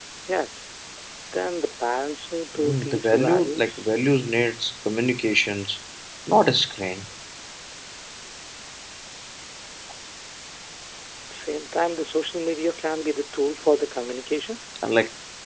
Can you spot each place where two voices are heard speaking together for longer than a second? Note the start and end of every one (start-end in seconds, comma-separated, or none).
2.5-3.9